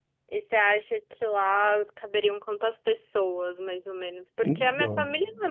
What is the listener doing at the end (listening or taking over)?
listening